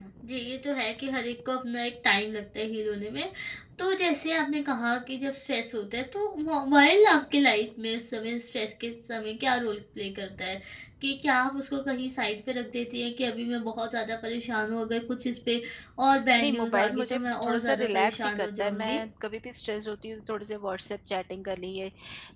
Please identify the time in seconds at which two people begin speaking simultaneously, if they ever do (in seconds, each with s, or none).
16.4 s